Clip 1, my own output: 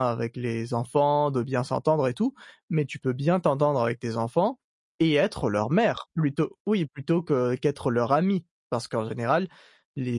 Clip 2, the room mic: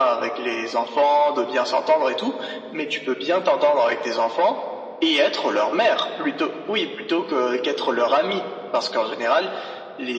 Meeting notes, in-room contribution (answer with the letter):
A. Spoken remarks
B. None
B